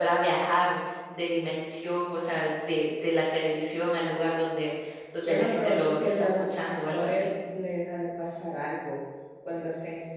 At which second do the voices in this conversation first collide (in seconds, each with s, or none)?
5.2 s